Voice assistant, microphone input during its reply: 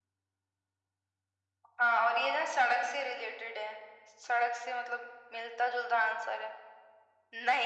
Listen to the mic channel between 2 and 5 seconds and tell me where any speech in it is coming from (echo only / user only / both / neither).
echo only